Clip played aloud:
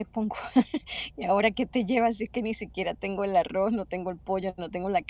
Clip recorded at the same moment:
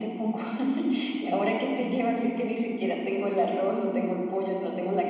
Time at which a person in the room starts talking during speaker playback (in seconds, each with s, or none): none